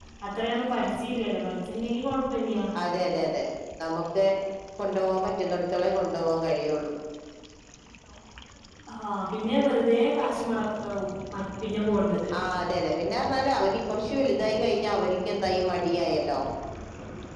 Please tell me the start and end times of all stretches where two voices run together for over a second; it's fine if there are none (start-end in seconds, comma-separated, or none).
none